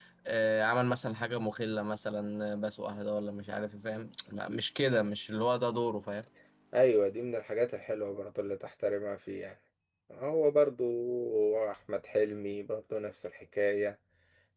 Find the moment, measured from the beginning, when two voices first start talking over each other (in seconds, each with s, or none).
none